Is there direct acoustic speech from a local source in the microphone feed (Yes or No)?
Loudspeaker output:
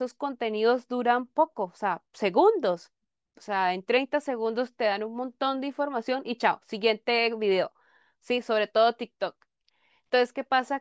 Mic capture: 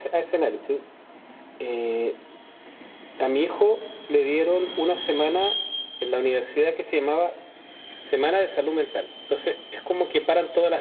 Yes